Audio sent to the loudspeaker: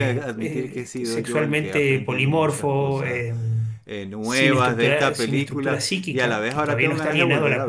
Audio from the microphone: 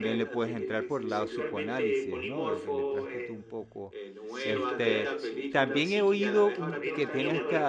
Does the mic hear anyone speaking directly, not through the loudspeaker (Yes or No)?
Yes